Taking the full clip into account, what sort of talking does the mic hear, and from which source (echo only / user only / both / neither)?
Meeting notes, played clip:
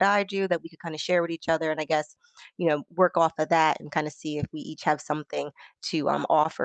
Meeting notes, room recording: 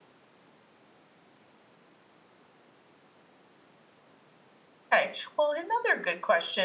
user only